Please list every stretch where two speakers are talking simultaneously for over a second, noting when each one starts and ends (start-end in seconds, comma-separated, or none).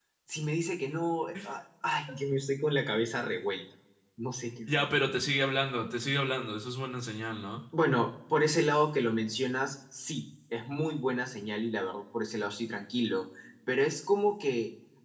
none